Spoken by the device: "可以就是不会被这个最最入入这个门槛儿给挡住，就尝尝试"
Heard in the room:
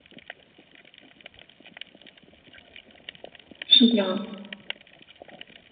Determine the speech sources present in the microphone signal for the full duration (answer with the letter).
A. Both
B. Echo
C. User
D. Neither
C